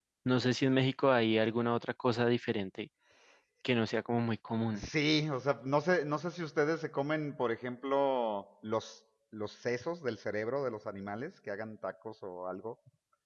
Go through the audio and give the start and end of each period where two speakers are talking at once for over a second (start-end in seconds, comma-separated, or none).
none